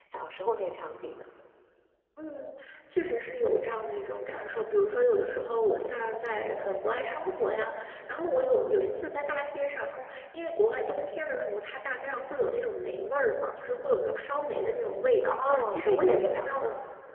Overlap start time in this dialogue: 15.4 s

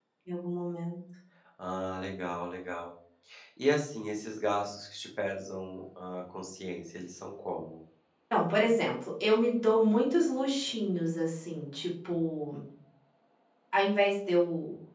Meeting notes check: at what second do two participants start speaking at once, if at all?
none

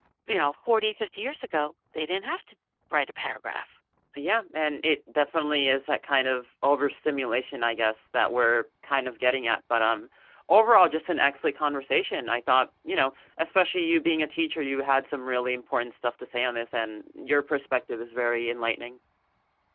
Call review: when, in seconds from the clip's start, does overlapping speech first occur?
none

